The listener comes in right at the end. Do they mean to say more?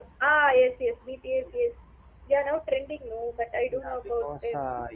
Yes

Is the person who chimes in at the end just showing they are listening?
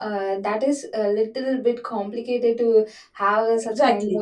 No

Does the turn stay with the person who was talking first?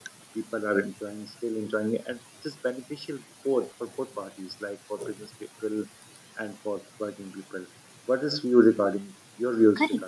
No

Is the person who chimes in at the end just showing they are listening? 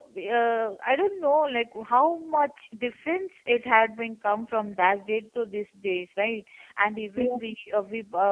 Yes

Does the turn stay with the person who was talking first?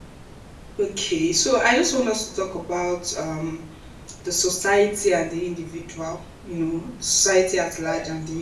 Yes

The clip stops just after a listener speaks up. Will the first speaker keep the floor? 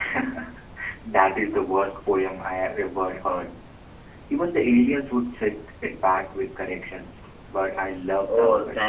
No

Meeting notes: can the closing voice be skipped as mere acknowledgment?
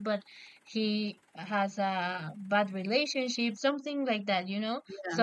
Yes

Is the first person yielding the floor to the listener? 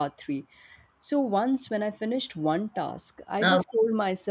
No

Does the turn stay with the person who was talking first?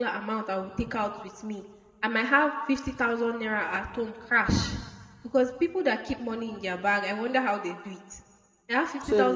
Yes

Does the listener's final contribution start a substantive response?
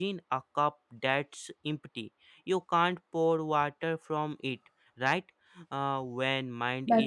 No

